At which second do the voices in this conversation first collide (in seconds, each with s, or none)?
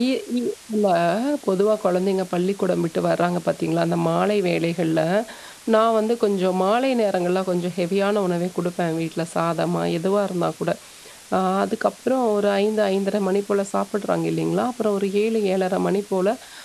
none